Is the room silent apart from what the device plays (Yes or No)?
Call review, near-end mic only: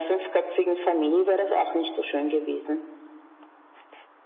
Yes